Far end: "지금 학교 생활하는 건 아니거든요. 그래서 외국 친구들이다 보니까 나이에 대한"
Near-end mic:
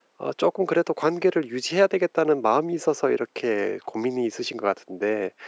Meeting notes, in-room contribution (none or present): present